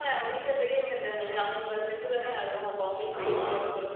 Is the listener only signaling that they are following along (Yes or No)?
Yes